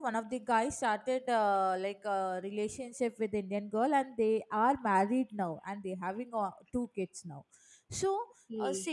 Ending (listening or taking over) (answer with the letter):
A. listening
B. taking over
A